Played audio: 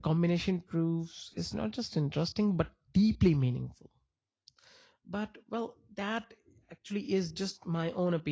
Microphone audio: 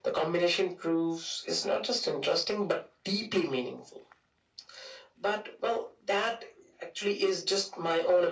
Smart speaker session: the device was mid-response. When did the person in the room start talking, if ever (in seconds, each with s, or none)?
none